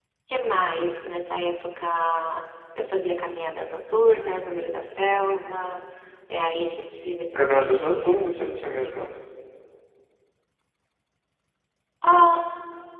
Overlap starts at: 7.4 s

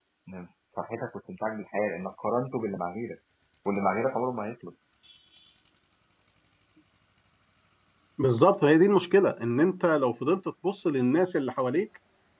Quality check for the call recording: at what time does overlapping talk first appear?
none

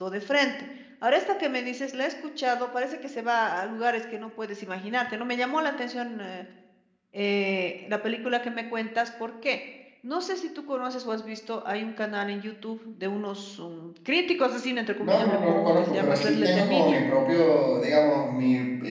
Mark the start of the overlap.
15.0 s

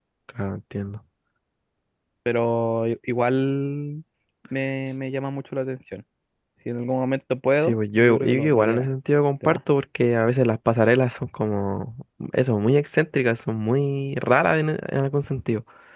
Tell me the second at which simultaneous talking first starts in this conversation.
7.6 s

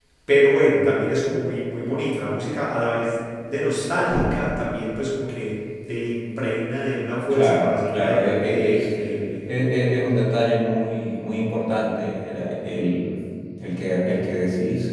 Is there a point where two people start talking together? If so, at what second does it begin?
7.3 s

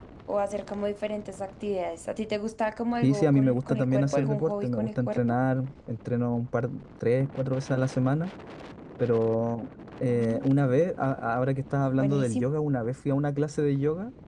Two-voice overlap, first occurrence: 3.0 s

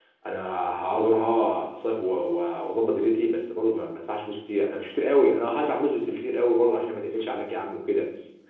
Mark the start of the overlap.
none

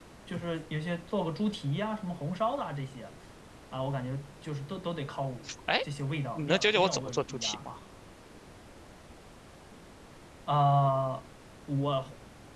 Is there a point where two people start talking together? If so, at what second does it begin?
6.3 s

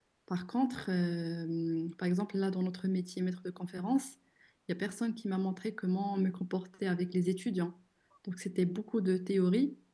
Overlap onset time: none

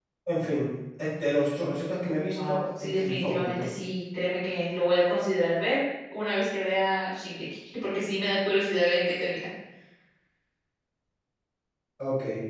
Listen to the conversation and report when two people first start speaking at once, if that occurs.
2.4 s

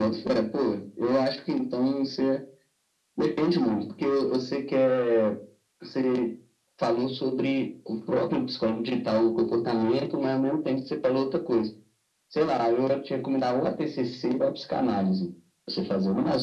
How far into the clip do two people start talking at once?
none

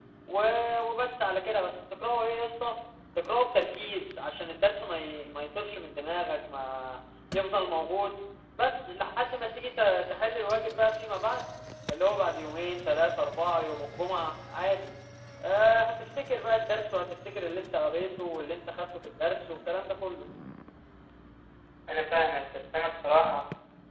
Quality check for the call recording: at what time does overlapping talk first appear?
none

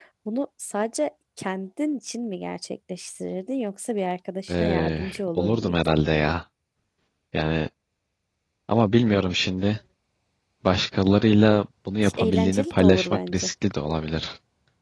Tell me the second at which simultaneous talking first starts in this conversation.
4.5 s

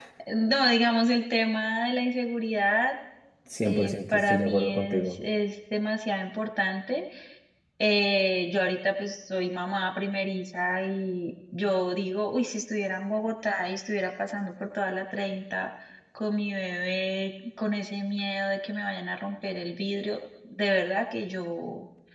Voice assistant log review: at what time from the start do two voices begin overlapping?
3.6 s

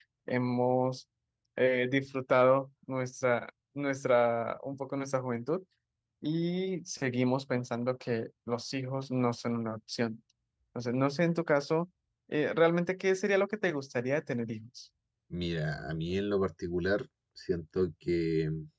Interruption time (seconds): none

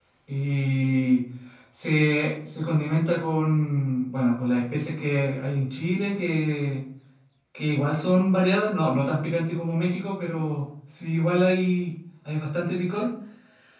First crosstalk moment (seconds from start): none

